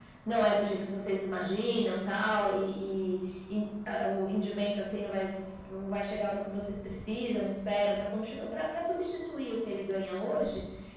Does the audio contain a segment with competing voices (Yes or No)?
No